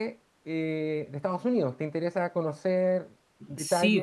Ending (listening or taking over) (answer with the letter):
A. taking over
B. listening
A